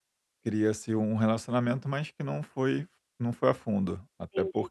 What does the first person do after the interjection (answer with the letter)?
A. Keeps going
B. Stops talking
A